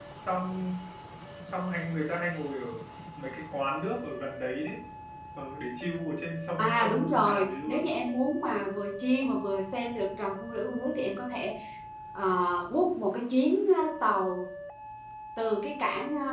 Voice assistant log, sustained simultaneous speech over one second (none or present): present